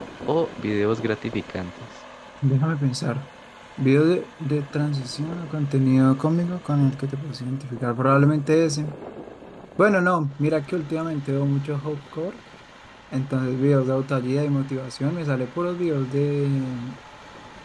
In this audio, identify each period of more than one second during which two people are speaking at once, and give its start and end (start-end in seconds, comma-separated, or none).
none